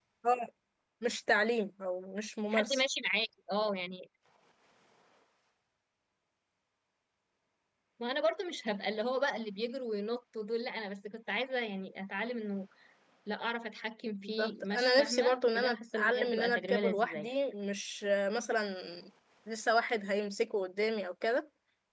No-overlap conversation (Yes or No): No